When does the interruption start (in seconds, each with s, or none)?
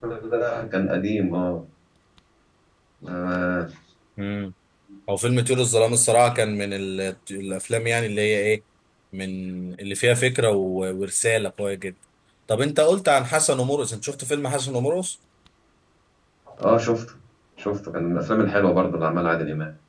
none